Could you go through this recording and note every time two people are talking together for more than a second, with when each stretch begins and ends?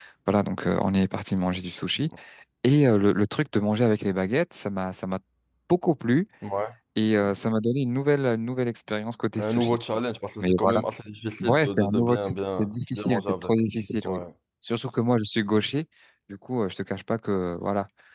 11.4-13.5

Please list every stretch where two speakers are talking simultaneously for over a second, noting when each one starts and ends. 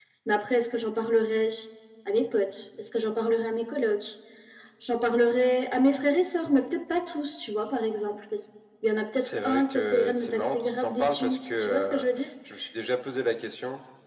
9.2-12.1

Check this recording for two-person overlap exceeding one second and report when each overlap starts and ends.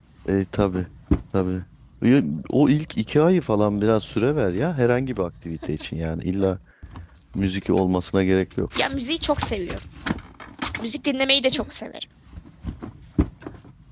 none

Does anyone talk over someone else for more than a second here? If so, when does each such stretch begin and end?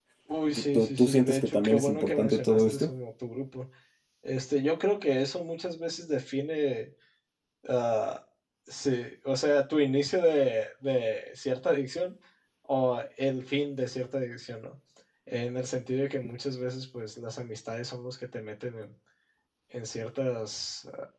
0.5-2.9

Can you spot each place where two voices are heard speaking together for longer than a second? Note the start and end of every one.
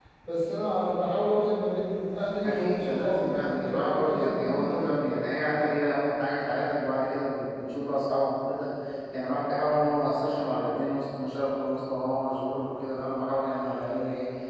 2.4-5.0

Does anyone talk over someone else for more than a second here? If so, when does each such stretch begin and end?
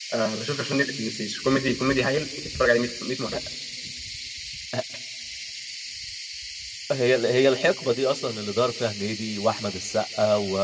none

